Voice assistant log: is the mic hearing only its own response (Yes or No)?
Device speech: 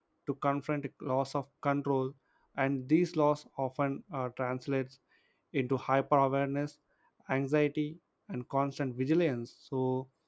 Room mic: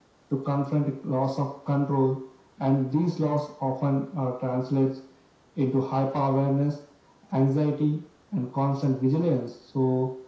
Yes